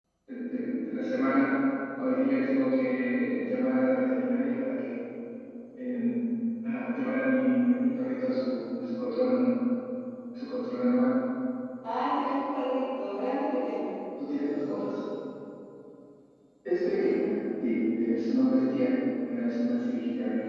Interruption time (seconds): none

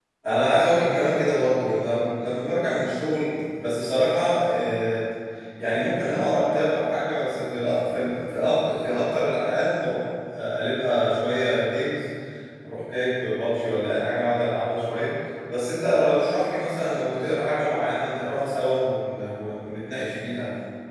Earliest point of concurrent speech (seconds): none

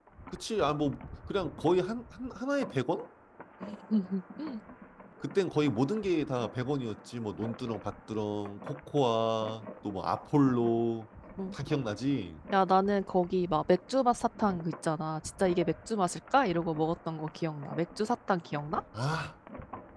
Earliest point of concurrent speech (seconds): none

